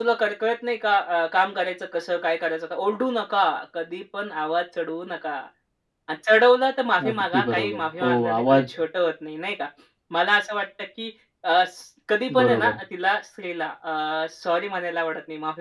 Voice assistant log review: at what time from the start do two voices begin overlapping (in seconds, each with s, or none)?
7.1 s